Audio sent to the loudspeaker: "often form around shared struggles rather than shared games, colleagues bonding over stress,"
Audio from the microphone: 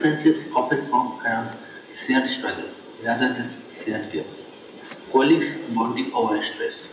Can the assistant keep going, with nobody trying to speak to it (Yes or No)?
Yes